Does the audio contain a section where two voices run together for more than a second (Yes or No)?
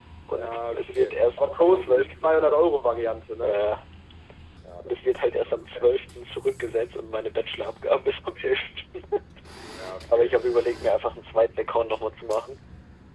Yes